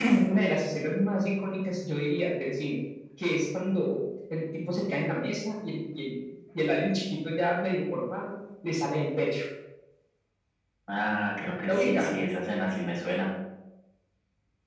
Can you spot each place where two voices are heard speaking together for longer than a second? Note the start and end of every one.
none

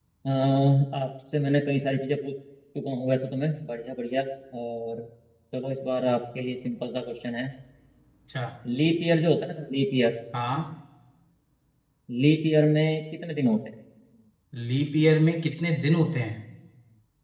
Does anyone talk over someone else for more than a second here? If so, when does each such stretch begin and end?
none

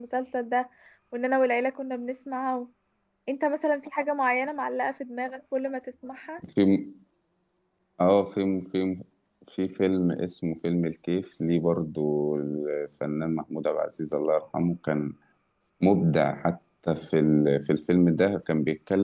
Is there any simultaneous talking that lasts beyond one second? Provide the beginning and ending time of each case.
none

